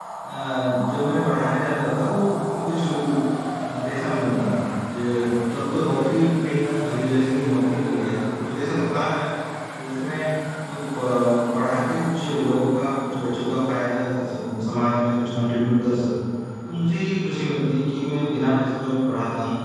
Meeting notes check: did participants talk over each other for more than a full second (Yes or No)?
No